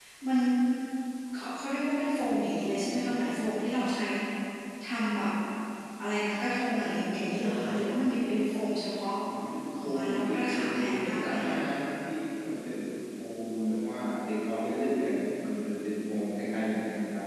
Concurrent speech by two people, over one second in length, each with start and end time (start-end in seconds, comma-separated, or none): 9.8-11.6